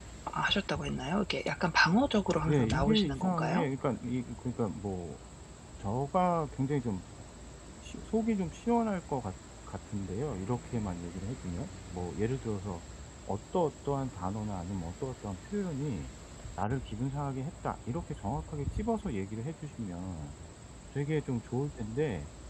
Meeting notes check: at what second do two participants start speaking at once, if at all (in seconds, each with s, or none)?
2.5 s